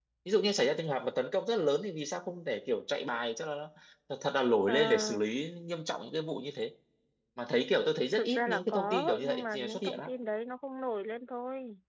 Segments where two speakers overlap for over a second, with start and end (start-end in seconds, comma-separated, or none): 8.1-10.1